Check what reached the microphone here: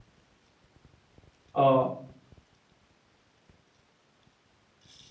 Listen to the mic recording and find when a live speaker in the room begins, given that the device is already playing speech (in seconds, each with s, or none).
1.5 s